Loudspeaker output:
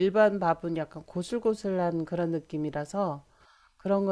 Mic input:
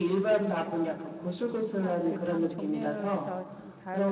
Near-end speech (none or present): present